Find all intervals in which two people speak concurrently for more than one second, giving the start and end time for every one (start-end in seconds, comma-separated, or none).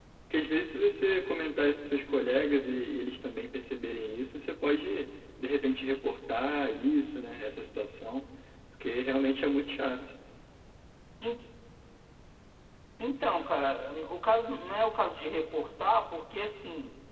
none